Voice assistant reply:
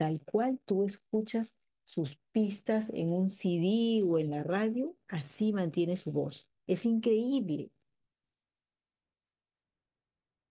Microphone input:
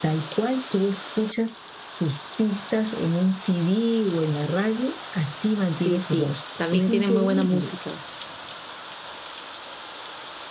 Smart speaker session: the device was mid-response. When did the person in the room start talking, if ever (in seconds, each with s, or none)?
5.7 s